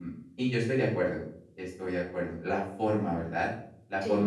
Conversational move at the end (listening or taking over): listening